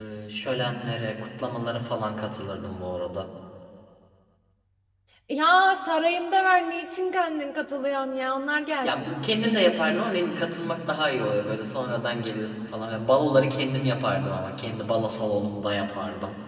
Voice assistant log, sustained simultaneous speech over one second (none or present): none